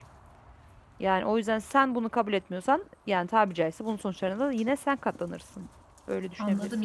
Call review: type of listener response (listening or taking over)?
taking over